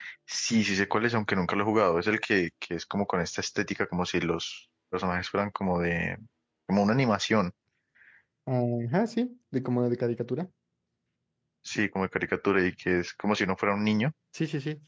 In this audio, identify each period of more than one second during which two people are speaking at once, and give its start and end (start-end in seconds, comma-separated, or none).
none